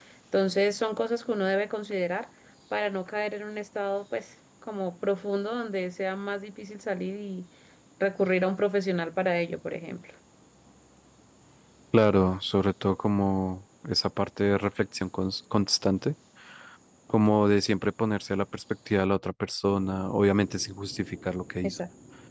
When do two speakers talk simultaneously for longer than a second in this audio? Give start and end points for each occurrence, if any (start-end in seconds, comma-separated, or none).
none